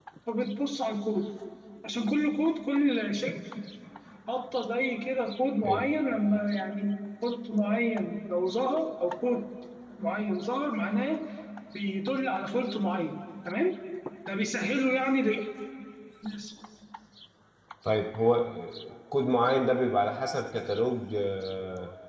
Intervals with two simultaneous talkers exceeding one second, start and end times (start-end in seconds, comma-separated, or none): none